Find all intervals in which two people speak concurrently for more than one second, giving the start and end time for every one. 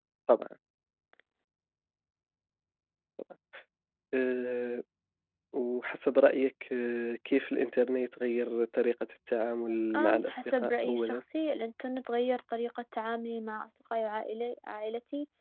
10.0-11.2

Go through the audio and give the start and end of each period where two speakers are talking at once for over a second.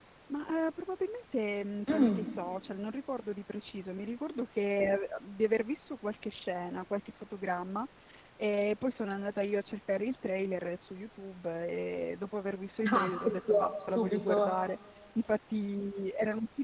12.9-14.6

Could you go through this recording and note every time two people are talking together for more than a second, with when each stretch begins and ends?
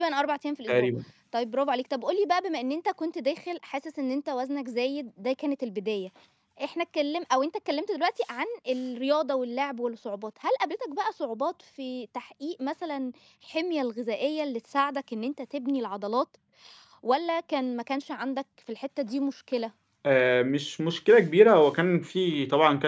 none

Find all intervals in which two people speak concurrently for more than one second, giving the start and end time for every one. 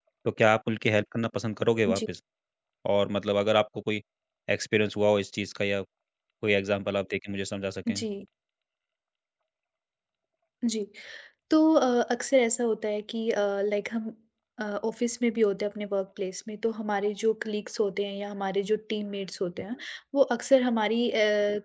none

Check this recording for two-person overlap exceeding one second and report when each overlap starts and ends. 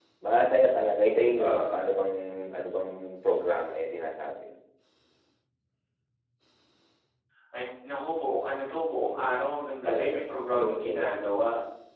9.8-11.3

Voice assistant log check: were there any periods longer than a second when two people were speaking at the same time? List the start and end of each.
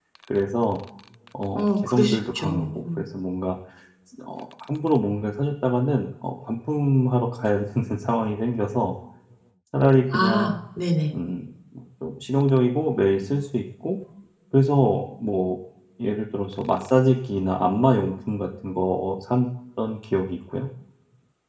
1.6-3.0

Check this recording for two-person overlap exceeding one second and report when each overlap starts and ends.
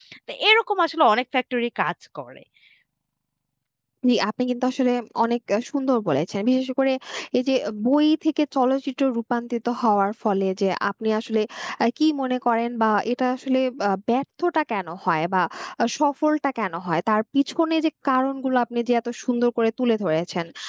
none

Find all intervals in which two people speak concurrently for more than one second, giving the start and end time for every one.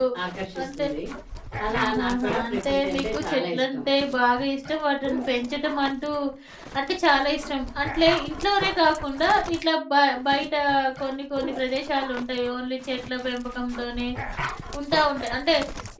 1.8-3.8

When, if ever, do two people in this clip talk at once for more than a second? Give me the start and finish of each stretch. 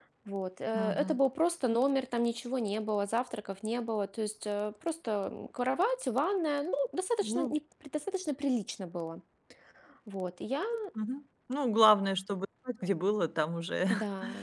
none

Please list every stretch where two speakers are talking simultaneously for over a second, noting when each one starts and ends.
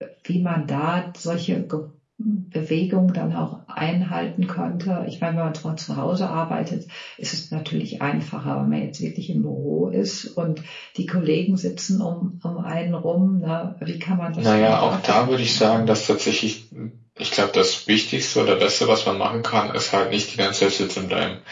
14.4-15.9

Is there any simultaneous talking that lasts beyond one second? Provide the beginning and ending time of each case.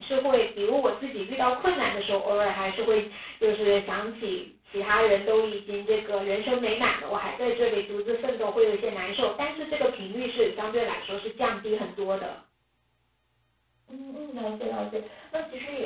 none

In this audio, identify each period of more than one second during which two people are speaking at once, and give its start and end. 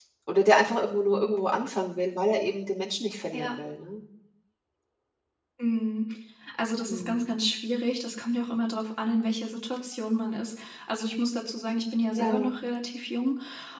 none

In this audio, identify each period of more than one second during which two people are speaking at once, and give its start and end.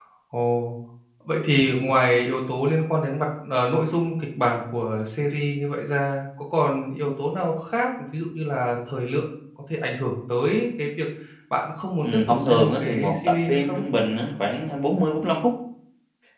12.0-13.8

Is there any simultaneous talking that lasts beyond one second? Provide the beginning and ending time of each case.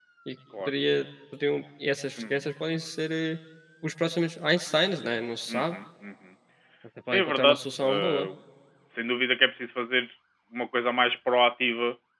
7.1-8.3

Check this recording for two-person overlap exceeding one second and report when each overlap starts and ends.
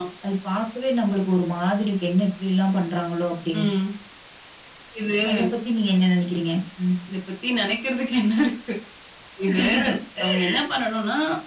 none

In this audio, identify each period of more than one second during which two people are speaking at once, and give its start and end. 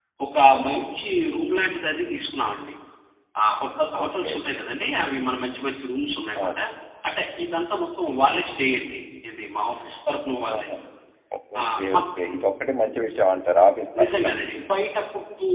none

